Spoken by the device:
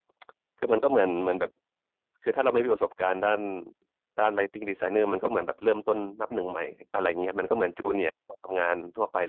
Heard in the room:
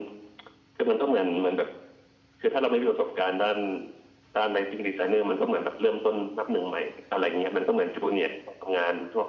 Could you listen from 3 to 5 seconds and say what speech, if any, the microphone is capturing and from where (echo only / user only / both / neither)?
echo only